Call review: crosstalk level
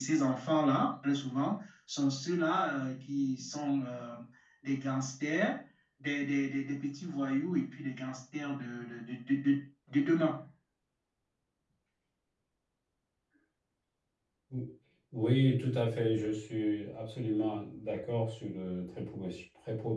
none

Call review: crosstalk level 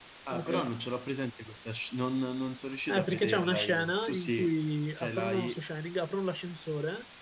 present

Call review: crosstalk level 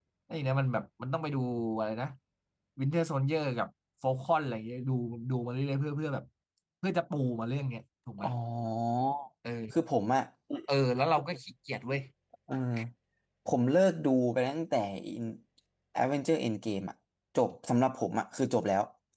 none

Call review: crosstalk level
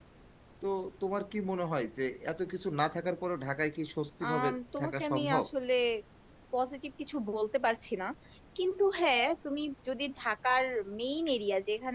present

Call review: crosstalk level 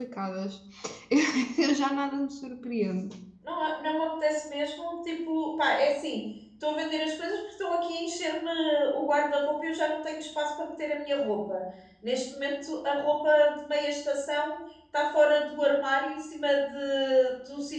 none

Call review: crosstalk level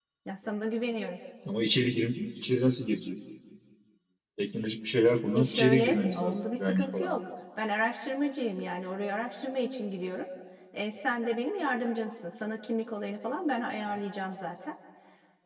present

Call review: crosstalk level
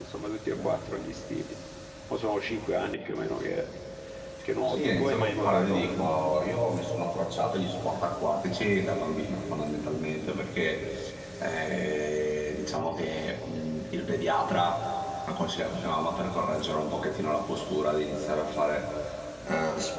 present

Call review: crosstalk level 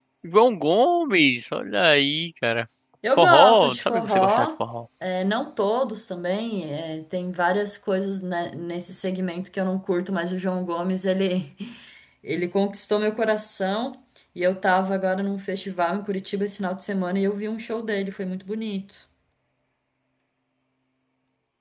present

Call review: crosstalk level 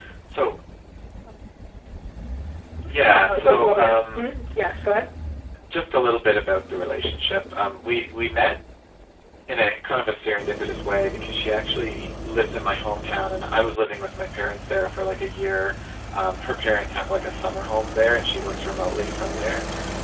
present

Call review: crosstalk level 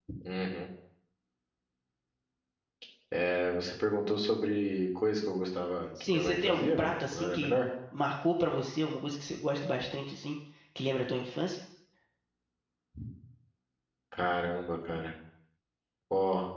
present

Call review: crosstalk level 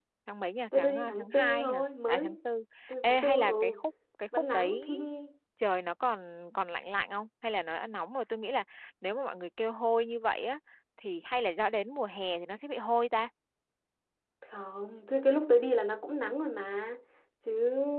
present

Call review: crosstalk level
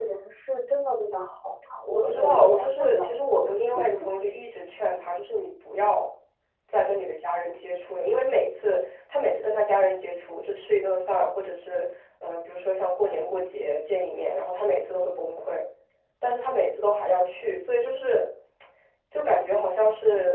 present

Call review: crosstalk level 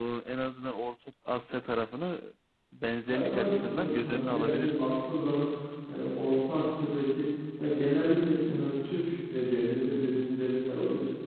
present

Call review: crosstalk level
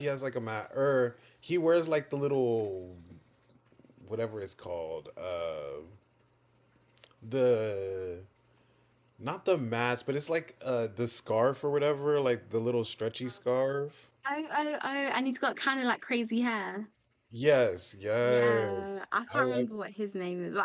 present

